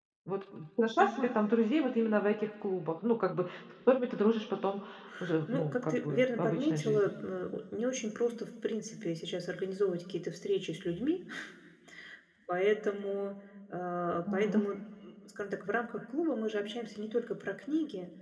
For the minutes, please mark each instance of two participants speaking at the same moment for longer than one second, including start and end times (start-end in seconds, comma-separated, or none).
5.5-7.1